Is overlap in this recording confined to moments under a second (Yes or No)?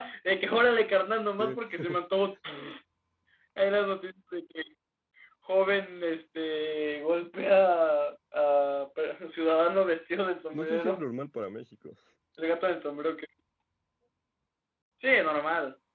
Yes